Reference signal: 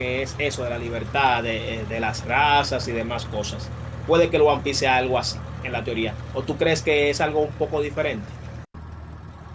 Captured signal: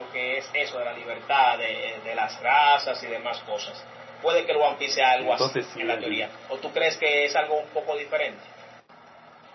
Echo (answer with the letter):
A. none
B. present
B